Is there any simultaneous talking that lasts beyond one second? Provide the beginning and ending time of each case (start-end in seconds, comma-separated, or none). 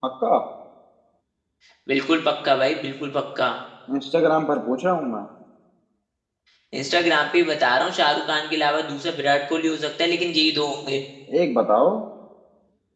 none